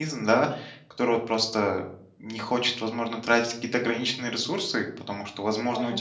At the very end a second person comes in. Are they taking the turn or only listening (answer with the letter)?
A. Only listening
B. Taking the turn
A